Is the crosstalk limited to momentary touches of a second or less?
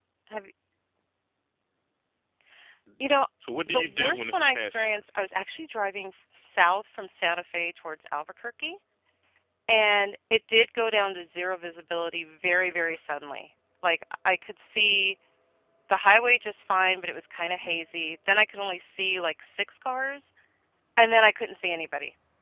No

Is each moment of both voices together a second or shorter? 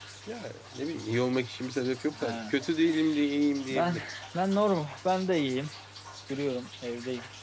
Yes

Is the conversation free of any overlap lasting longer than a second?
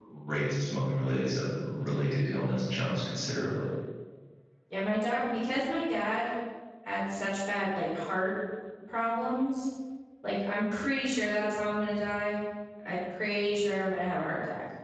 Yes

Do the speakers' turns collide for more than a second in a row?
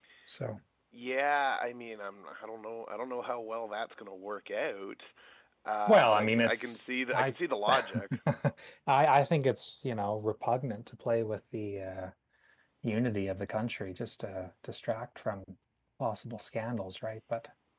Yes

